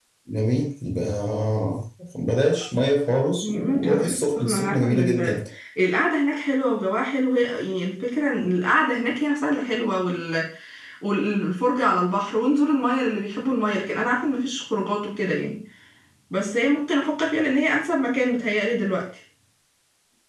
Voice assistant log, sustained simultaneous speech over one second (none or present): present